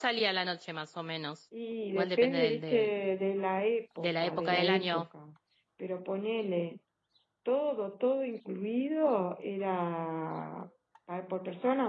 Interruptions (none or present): present